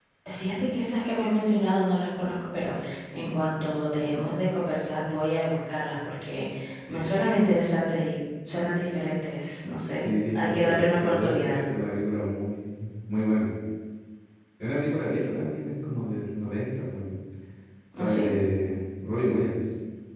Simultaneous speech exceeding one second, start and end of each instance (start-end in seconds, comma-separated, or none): 9.8-11.6